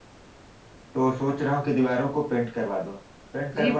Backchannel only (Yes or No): Yes